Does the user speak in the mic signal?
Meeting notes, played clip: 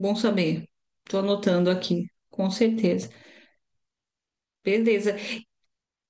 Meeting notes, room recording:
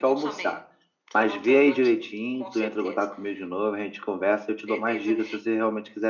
Yes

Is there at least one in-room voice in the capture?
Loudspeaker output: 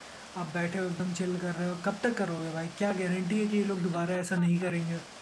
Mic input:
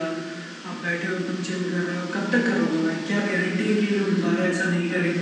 No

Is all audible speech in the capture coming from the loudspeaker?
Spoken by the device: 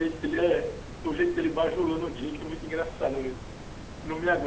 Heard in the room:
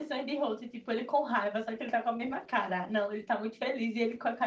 No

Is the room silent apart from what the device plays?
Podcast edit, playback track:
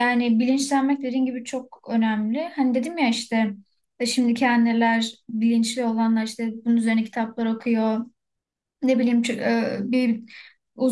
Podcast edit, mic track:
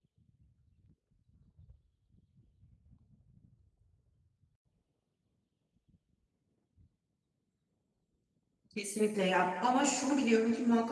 No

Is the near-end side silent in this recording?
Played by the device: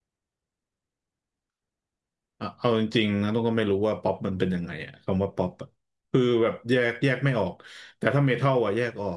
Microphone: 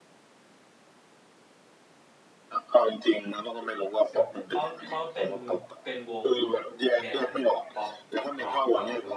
No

